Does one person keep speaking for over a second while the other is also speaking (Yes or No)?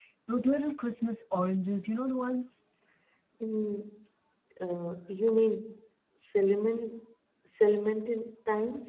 No